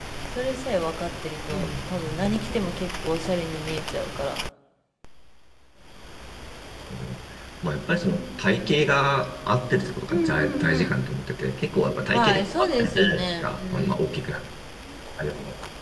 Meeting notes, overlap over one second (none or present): present